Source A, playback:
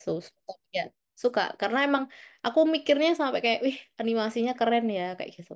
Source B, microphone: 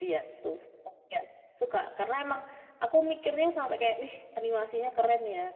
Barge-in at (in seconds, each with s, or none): none